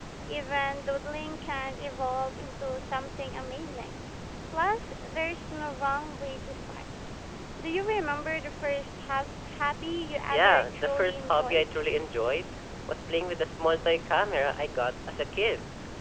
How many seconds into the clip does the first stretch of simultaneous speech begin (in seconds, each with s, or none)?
10.3 s